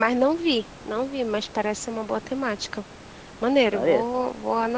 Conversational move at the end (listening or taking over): listening